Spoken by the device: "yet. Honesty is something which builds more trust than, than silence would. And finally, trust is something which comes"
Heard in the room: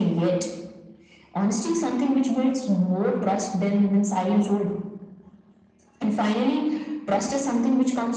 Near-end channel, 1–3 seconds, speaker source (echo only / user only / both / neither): echo only